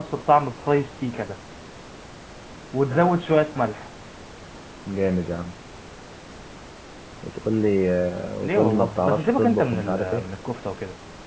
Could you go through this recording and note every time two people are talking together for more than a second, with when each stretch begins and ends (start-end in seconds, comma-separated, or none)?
8.4-10.2